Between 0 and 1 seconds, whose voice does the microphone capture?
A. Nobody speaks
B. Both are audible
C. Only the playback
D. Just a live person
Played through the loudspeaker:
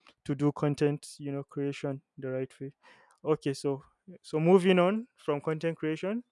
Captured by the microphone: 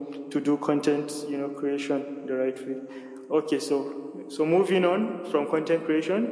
C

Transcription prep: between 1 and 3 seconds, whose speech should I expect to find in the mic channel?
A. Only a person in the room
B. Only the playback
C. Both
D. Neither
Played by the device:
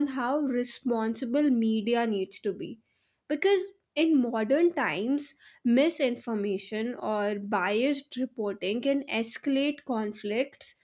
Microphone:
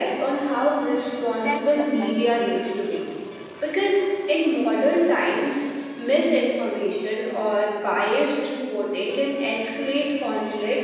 C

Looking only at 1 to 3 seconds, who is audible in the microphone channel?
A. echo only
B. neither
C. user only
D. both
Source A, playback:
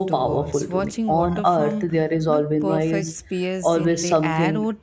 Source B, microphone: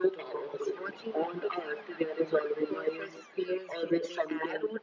A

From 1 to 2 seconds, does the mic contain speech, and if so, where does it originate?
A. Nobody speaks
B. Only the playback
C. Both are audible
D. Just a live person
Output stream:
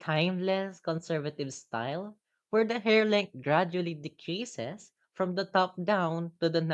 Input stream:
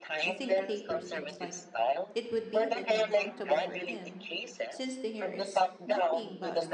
C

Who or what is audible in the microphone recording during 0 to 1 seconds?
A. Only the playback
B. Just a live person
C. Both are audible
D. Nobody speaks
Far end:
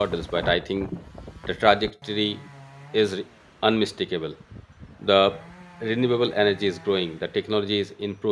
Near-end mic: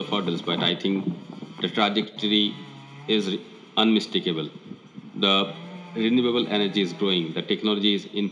A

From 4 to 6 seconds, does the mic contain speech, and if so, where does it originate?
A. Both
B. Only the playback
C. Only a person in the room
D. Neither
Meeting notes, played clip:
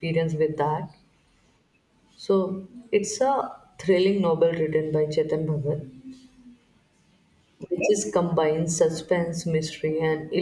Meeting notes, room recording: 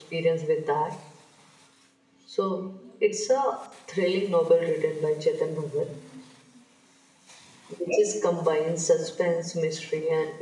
B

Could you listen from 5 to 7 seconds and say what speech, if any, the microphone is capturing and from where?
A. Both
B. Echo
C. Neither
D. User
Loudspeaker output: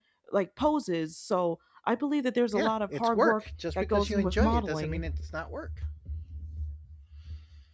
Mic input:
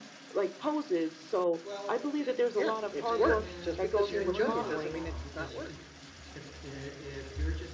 A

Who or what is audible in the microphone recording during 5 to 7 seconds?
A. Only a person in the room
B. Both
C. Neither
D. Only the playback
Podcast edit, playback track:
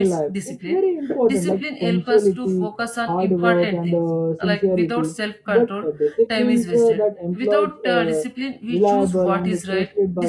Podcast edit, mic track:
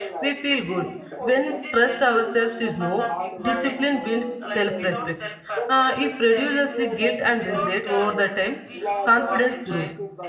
B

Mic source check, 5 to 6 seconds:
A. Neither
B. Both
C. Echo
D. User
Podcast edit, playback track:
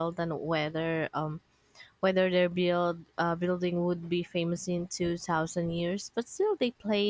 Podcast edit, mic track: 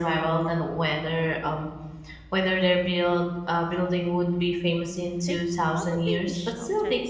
B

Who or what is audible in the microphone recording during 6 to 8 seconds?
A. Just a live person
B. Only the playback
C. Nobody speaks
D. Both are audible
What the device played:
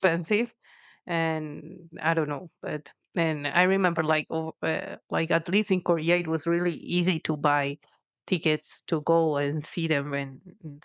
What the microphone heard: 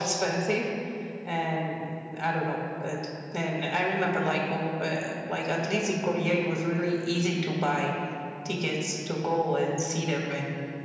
B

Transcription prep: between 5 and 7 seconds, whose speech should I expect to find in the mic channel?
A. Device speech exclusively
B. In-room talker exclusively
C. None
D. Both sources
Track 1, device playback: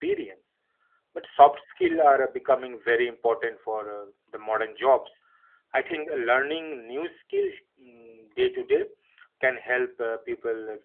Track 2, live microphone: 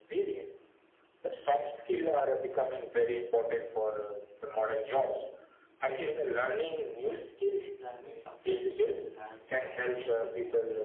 A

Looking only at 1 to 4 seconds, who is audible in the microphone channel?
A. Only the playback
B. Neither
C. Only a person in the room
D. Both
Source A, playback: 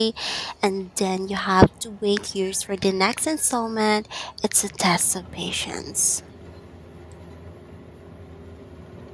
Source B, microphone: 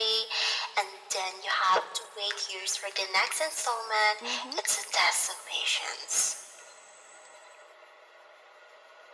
A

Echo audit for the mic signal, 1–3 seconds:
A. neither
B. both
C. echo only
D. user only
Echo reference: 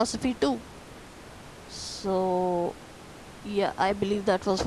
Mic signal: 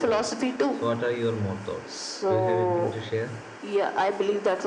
B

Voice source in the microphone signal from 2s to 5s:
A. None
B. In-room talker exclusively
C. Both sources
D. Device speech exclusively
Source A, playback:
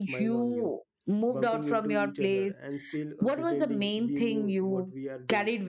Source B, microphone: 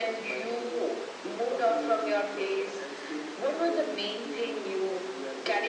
D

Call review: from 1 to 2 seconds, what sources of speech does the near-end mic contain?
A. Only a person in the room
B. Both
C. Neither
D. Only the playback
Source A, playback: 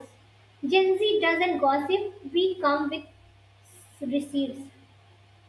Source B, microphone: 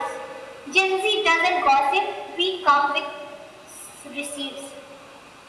D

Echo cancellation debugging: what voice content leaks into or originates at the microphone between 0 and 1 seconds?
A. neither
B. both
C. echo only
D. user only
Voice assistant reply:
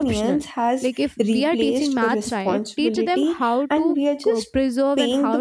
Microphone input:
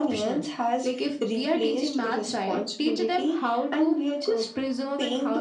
C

